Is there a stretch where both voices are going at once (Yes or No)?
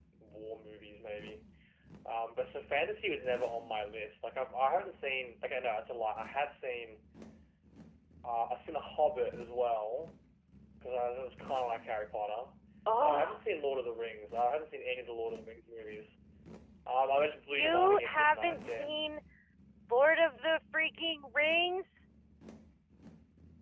Yes